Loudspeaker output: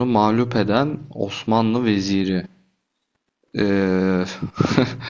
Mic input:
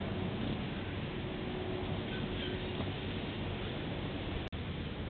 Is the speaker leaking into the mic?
No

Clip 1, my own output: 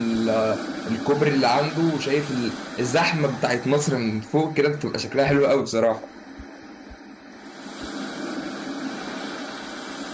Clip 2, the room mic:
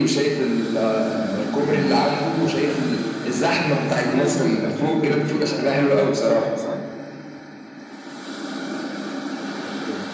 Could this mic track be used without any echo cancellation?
No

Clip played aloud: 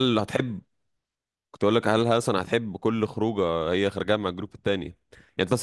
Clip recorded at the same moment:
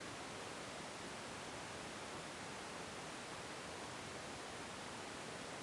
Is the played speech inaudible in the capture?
Yes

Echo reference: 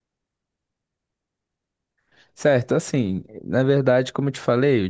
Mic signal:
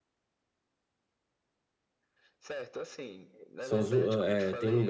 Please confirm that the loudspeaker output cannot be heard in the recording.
No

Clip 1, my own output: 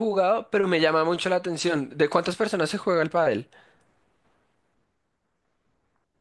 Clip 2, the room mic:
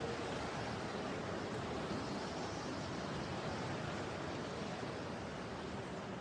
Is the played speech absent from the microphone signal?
Yes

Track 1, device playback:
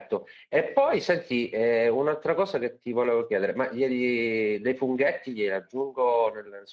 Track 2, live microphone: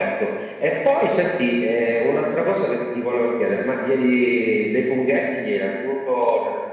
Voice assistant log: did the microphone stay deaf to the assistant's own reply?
No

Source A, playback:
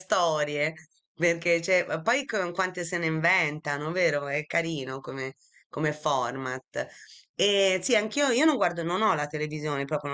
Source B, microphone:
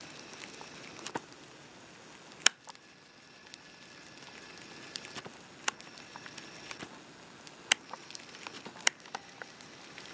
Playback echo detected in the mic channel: No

